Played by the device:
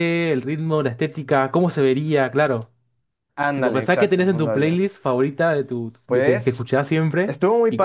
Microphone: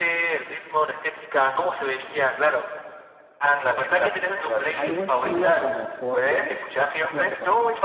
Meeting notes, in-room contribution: present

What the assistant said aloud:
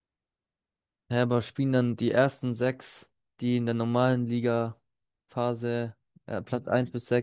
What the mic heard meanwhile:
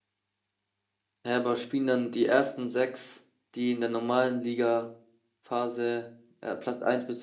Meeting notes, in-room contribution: none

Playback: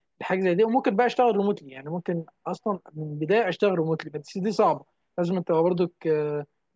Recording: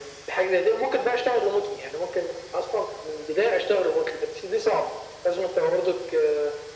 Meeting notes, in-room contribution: none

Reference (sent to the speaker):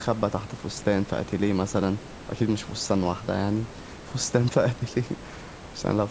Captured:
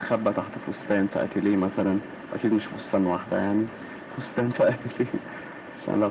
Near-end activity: none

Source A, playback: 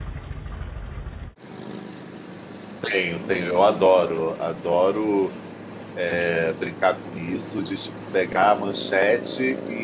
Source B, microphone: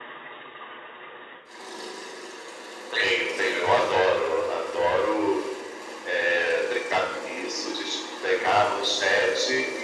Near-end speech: none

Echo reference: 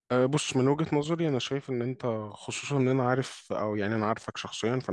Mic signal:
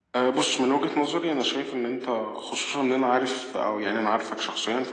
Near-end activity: none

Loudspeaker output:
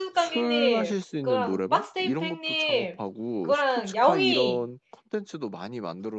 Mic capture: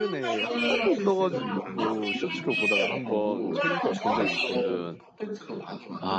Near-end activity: present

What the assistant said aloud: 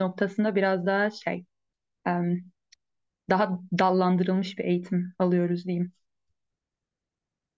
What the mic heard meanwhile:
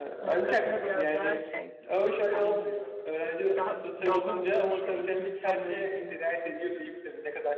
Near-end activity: present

